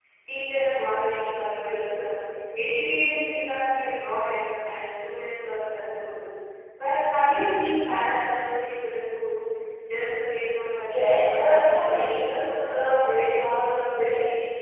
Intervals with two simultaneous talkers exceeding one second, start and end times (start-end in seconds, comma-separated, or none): 10.9-12.5